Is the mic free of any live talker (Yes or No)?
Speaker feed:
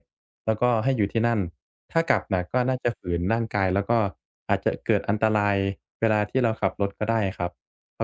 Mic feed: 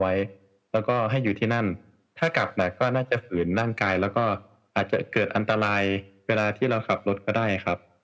Yes